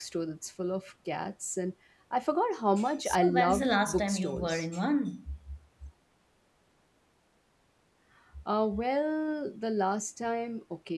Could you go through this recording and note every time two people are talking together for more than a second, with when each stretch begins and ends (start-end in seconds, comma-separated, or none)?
3.0-4.7